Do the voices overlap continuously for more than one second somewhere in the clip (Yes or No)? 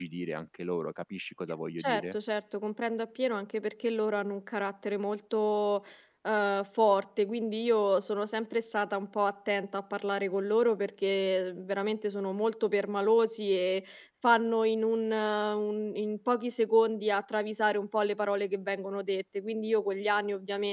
No